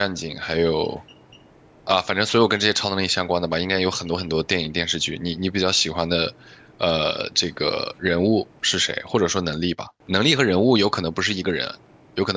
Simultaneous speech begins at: none

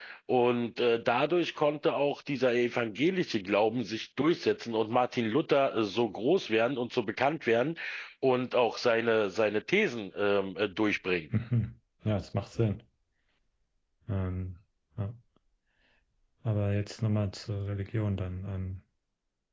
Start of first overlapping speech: none

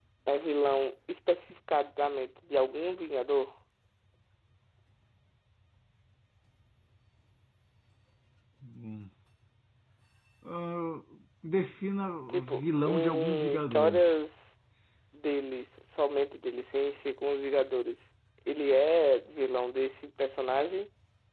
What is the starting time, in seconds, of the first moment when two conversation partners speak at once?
12 s

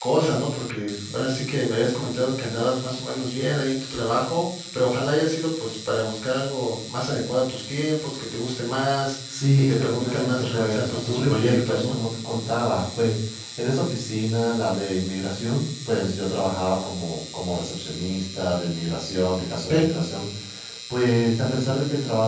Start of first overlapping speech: 9 s

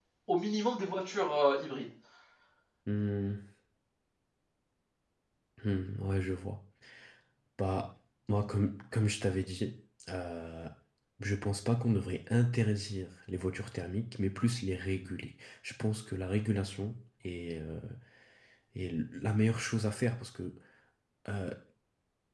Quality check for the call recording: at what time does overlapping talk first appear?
none

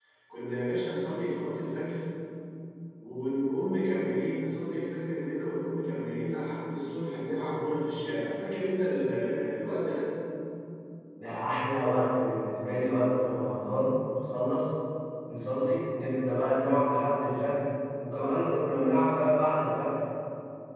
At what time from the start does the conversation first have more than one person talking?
none

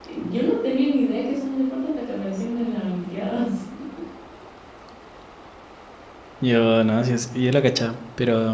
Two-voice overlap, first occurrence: none

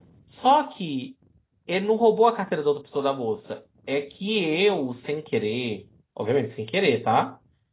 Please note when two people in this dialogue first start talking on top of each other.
none

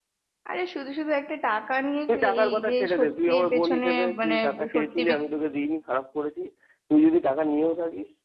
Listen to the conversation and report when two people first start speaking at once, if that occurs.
2 s

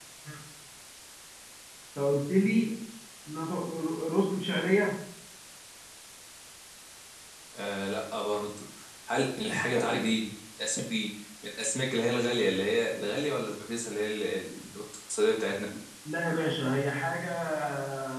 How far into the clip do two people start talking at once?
none

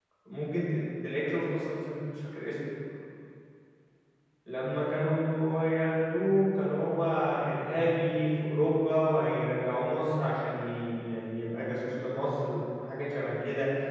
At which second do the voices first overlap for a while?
none

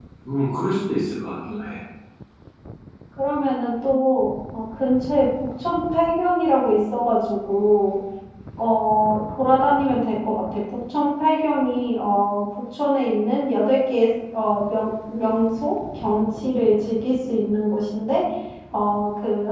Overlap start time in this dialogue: none

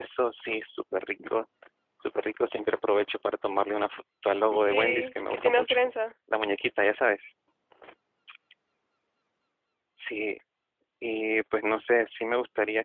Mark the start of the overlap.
5 s

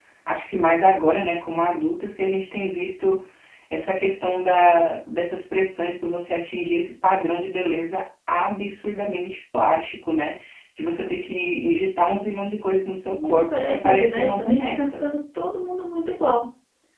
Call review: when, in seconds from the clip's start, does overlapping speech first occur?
13 s

